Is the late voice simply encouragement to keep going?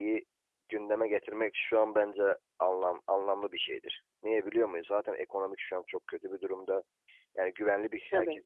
No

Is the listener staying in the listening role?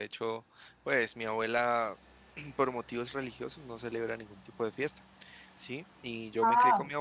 Yes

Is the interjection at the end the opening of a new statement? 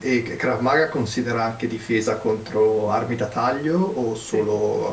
Yes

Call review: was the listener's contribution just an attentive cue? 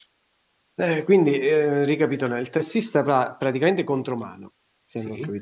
Yes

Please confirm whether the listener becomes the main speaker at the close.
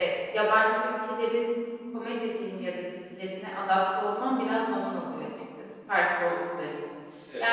No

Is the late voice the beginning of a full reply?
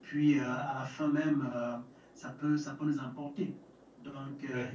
No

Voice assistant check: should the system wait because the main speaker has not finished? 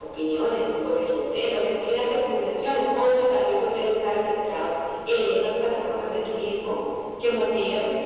Yes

